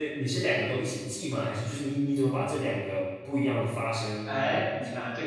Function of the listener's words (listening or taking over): taking over